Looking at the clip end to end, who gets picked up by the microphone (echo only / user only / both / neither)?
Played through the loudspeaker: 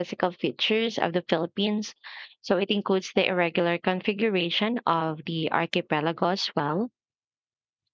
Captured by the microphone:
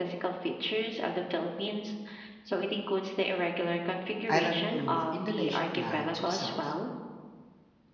both